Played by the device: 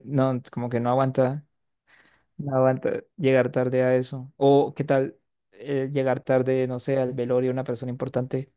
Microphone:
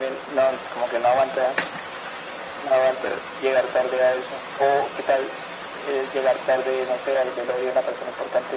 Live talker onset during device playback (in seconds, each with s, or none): none